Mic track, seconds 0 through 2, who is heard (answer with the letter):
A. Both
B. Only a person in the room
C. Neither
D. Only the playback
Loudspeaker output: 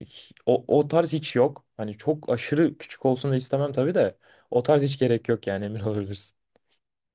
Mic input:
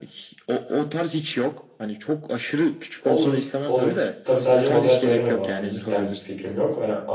D